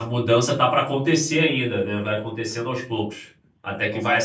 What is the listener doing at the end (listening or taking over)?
taking over